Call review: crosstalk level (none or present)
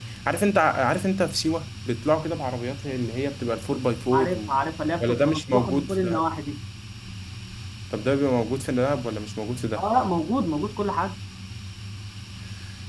present